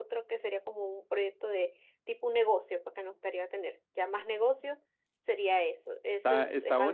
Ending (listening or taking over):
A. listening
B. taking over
B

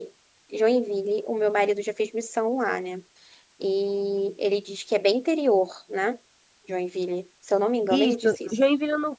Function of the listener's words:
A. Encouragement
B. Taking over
B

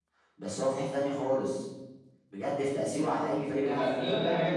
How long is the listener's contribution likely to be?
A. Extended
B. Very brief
A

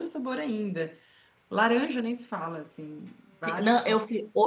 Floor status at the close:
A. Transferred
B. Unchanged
A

